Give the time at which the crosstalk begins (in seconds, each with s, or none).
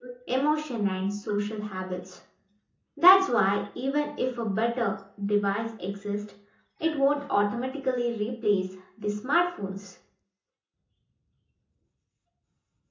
none